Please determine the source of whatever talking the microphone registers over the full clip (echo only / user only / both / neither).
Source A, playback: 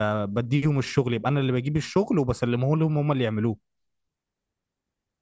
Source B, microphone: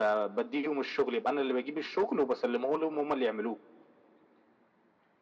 echo only